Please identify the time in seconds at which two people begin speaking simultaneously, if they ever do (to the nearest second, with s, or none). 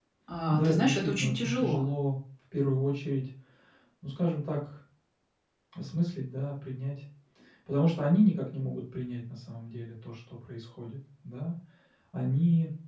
1 s